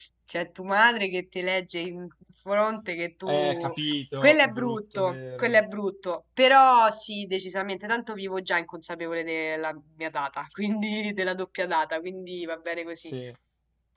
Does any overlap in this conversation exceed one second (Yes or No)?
Yes